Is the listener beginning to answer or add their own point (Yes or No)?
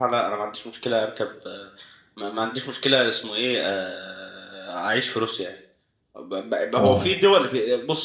No